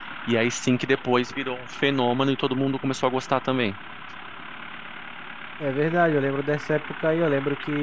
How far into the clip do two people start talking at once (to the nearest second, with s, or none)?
none